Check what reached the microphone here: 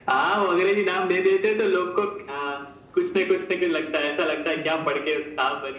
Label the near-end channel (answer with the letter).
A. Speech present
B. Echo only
A